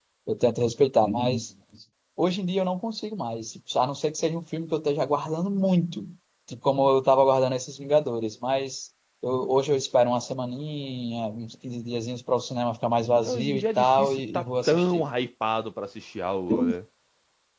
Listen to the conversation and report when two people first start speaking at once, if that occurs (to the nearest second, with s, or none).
13 s